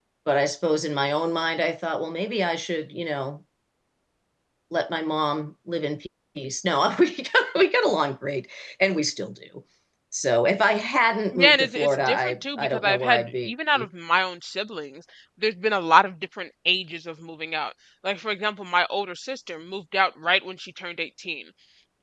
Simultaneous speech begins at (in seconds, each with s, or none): 11.3 s